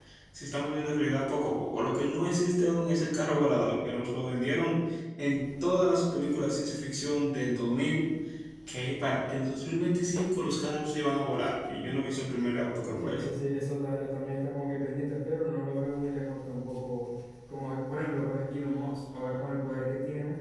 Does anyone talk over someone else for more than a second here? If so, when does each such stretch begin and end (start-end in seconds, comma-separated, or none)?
none